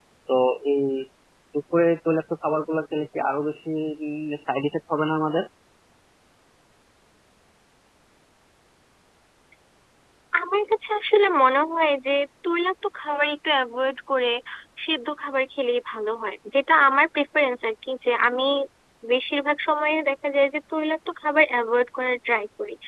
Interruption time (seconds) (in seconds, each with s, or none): none